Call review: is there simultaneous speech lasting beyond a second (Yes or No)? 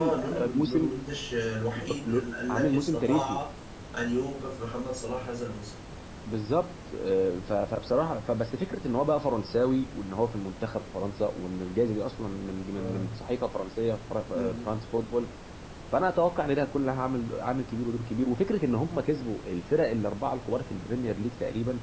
Yes